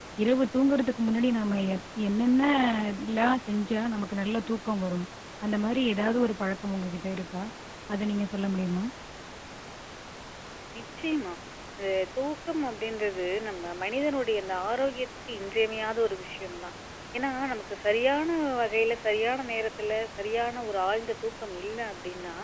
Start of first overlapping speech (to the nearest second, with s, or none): none